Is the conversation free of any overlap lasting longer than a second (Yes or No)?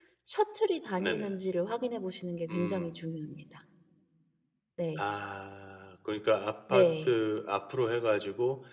Yes